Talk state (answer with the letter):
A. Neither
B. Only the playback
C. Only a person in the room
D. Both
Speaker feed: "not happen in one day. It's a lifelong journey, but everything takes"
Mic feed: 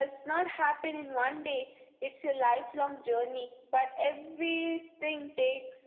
B